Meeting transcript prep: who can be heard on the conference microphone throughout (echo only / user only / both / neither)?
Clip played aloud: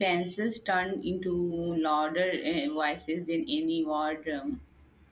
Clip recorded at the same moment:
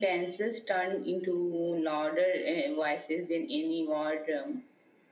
echo only